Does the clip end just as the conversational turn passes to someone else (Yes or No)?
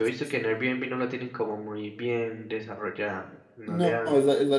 Yes